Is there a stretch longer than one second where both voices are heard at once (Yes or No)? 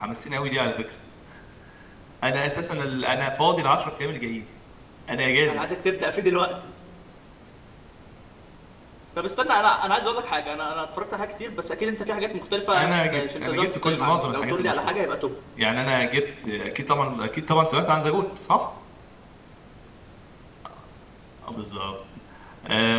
Yes